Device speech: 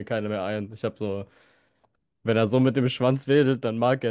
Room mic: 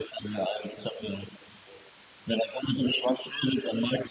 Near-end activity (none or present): none